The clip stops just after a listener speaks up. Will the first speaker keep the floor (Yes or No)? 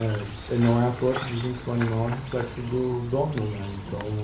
Yes